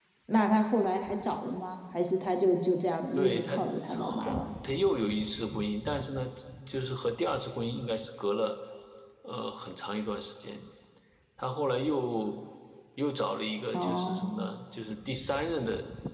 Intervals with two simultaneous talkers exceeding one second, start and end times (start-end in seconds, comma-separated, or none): 3.1-4.5